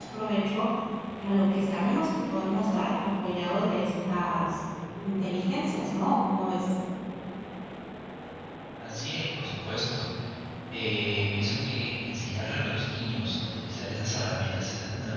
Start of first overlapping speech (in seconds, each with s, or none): none